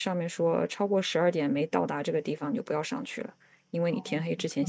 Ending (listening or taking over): taking over